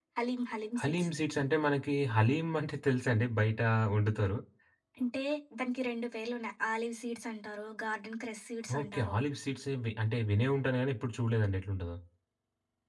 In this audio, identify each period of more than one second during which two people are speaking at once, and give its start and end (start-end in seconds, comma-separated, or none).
none